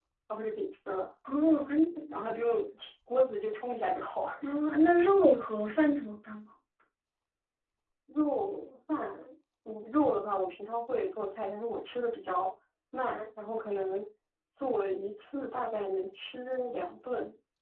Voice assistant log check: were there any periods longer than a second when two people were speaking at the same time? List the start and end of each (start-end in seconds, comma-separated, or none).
none